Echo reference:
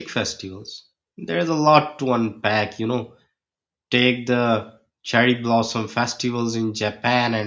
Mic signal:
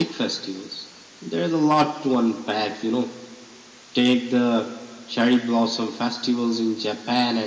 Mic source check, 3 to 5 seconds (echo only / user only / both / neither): echo only